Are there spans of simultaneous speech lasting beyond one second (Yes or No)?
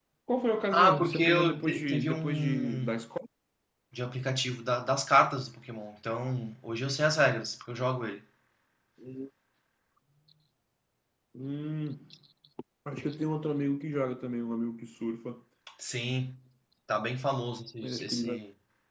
Yes